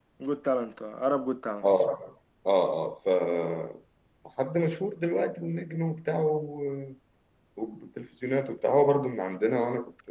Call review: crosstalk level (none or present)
none